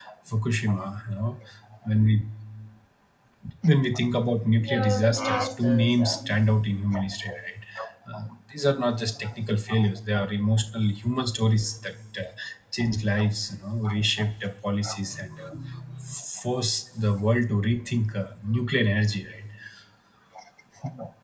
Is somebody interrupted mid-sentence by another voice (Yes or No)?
Yes